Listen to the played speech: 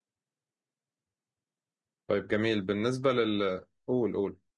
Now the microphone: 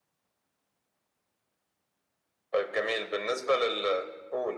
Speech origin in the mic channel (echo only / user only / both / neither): echo only